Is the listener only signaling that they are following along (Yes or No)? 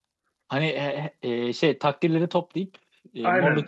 No